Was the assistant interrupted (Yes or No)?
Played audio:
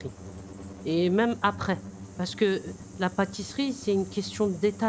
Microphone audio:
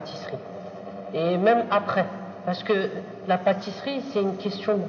No